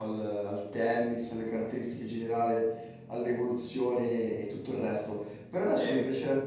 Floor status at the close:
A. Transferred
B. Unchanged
B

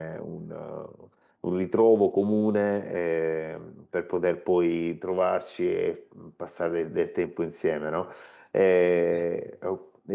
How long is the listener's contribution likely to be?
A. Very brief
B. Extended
A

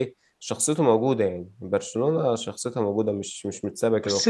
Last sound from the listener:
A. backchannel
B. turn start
B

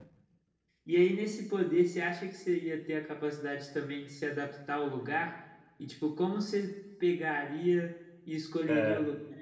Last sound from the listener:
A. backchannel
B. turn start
A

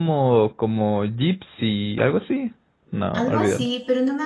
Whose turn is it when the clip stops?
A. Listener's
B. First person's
A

